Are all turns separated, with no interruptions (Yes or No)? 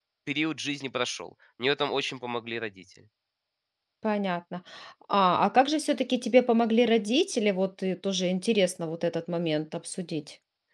Yes